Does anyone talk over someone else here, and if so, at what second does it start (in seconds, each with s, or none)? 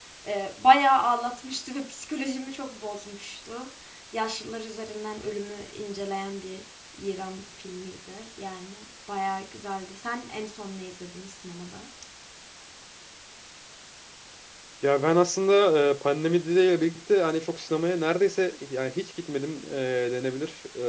none